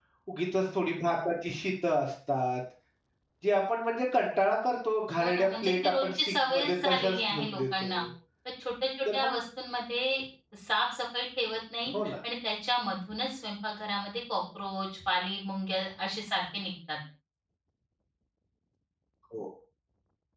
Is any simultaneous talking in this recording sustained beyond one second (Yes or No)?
Yes